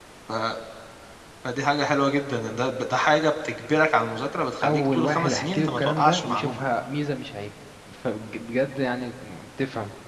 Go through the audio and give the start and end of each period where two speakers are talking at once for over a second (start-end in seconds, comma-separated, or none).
4.6-6.6